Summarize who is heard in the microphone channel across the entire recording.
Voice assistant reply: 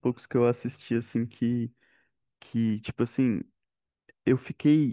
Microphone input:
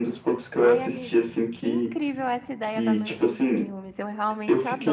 both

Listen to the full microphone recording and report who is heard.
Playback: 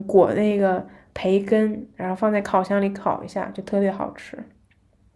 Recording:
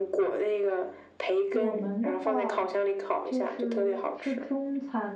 both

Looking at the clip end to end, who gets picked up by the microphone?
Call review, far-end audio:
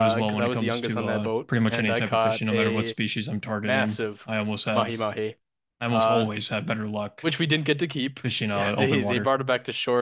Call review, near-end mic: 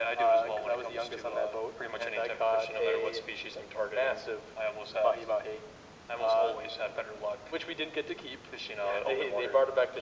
echo only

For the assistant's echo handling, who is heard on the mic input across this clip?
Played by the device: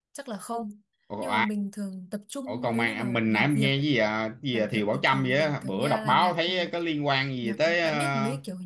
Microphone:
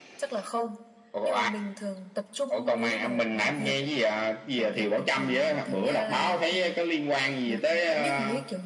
echo only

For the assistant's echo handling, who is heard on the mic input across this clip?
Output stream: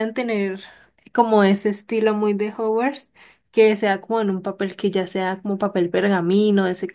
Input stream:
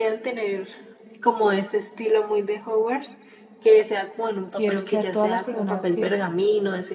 both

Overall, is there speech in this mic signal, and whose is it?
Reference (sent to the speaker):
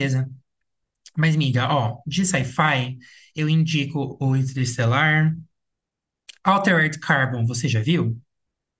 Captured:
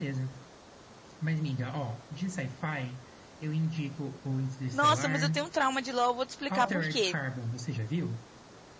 both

